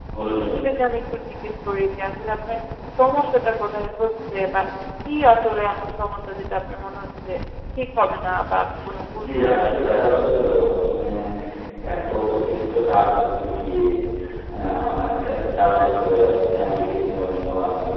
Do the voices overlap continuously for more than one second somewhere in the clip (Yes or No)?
Yes